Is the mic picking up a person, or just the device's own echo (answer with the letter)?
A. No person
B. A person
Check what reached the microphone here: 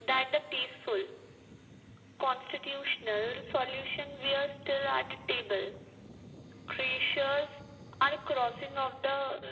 A